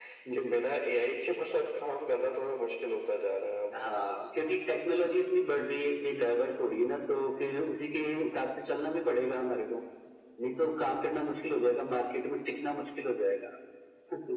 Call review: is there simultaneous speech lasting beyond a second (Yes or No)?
No